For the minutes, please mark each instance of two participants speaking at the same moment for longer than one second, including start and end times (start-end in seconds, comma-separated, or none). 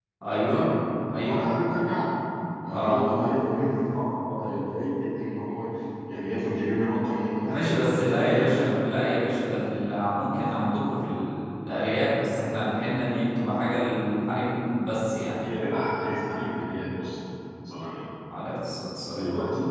7.5-8.9